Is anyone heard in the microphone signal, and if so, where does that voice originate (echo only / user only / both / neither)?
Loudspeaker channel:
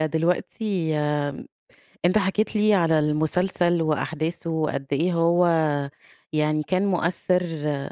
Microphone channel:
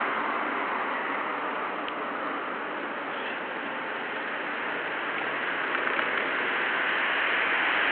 neither